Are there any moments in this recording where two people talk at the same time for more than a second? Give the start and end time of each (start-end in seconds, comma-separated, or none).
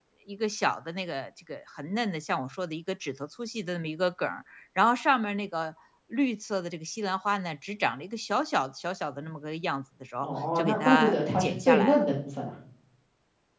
10.2-12.1